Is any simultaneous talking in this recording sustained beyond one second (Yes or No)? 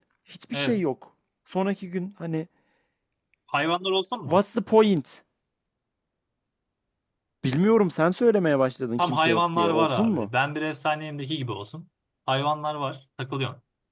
Yes